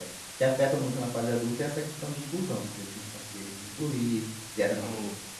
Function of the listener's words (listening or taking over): listening